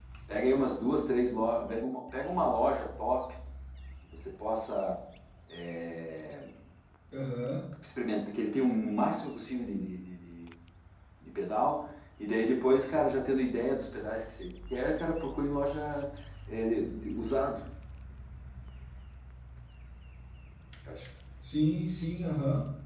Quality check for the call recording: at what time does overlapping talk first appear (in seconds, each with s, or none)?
none